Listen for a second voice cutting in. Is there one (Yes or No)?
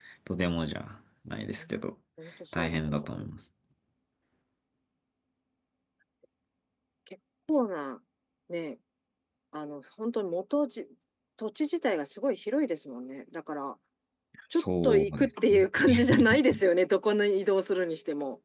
Yes